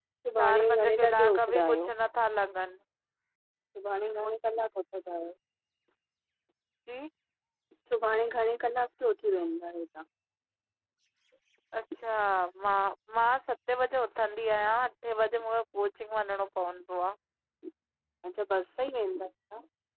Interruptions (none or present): present